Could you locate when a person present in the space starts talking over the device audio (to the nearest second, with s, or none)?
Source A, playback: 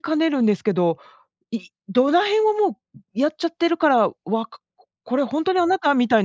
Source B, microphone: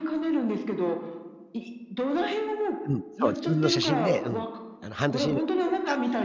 3 s